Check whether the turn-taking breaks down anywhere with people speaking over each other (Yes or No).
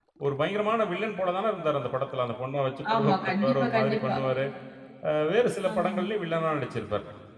Yes